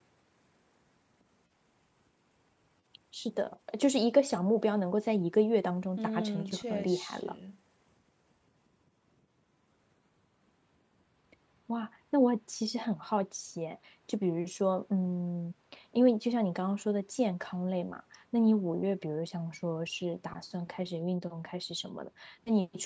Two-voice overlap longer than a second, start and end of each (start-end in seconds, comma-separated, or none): 6.0-7.3